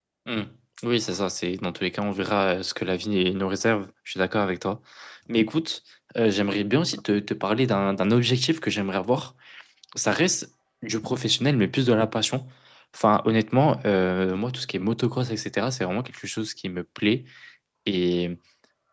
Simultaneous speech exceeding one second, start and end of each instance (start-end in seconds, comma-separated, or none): none